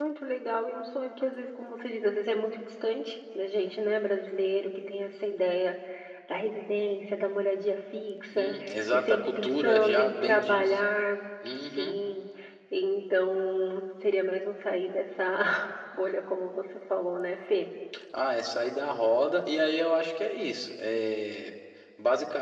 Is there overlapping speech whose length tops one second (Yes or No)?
Yes